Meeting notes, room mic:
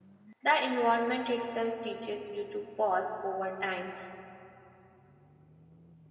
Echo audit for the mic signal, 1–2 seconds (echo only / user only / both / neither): user only